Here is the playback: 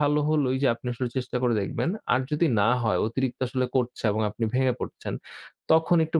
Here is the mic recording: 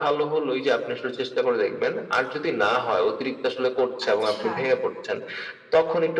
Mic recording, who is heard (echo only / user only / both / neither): both